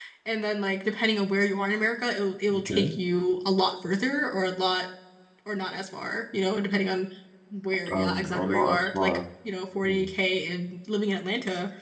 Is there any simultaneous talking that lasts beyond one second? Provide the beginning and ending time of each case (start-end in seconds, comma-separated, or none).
7.9-9.2